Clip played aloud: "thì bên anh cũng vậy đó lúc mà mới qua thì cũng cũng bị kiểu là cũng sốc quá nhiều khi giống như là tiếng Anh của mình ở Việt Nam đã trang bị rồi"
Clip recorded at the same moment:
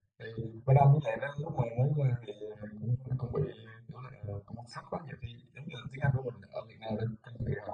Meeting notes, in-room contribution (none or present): none